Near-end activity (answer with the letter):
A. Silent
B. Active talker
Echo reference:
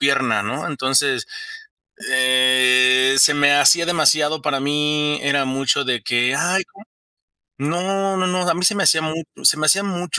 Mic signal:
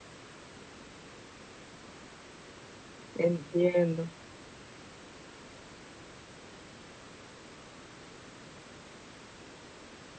B